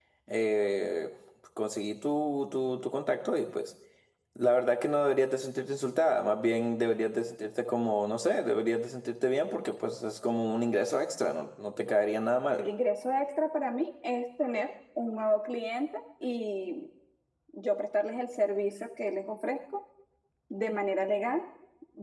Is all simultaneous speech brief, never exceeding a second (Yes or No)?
Yes